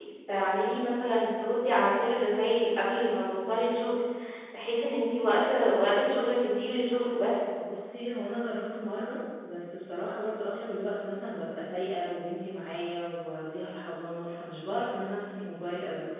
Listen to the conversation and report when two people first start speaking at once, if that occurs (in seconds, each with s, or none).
none